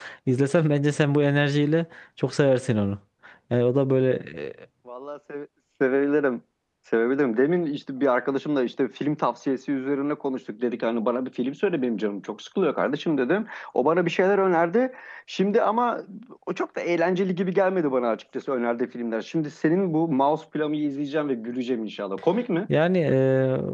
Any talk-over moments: No

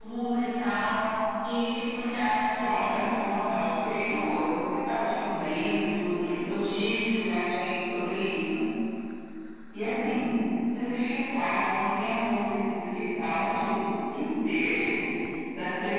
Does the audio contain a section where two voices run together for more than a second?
No

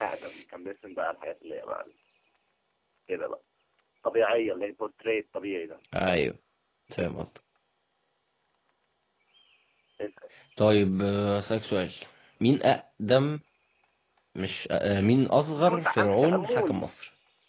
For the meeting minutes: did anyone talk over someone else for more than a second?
Yes, from 15.7 s

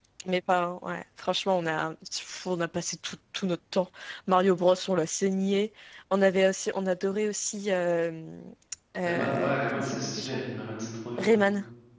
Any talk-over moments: Yes, from 9.1 s

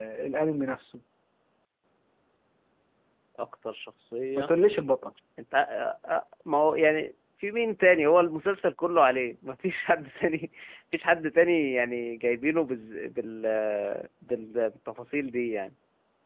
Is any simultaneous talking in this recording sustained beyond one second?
No

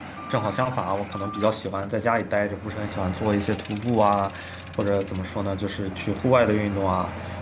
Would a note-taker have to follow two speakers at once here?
No

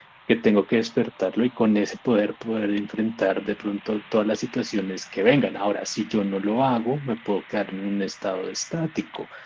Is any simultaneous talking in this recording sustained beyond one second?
No

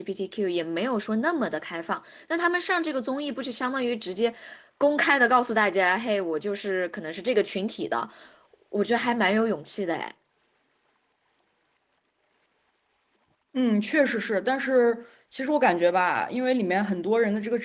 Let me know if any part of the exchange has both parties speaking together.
No

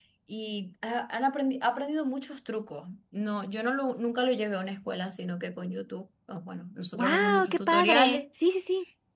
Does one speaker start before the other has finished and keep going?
Yes, from 6.9 s

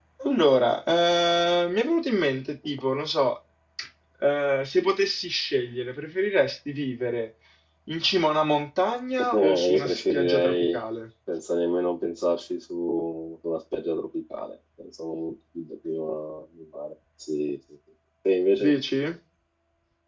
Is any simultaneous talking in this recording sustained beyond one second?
Yes, from 9.3 s

